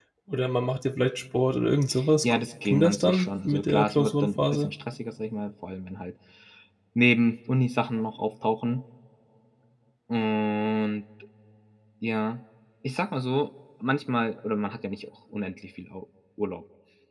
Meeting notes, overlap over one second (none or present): present